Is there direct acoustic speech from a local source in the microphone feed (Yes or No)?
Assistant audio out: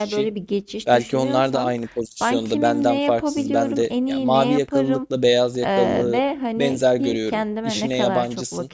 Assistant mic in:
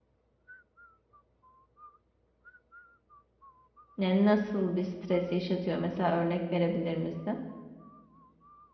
Yes